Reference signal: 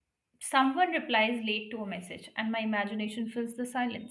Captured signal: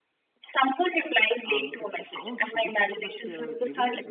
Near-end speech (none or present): present